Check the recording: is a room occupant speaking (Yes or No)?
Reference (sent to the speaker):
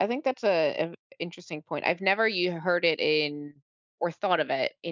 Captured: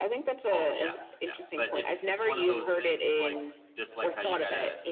Yes